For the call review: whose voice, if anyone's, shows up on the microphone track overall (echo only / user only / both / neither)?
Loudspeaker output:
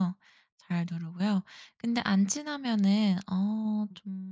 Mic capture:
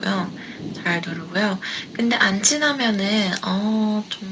echo only